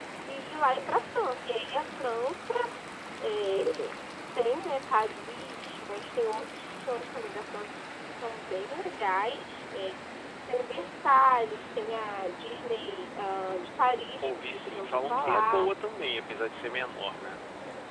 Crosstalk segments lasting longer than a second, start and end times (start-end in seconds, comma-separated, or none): 14.2-15.7